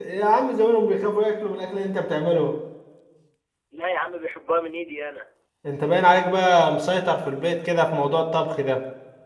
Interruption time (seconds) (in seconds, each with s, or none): none